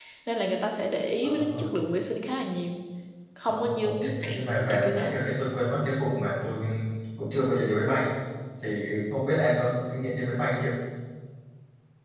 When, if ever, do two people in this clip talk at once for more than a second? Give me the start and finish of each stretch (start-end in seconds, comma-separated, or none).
3.5-5.1